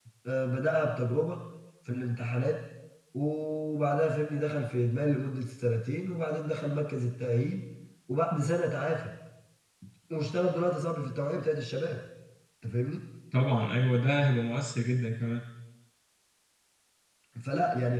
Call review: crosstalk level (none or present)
none